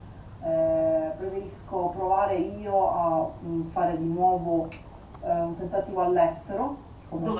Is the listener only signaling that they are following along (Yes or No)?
Yes